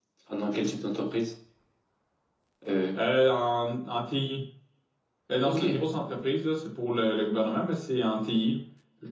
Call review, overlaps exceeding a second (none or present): none